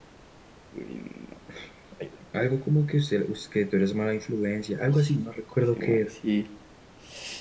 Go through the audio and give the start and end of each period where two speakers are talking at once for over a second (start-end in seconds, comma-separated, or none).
none